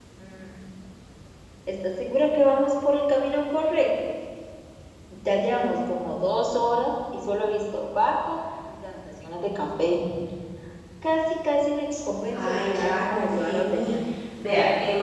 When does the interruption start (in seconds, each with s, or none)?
12.3 s